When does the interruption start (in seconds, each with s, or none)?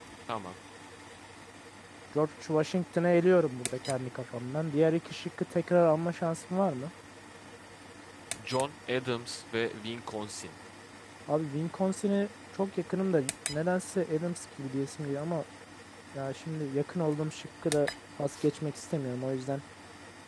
none